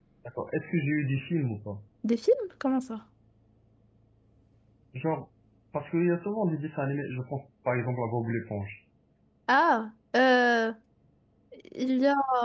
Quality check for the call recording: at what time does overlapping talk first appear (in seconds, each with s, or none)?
none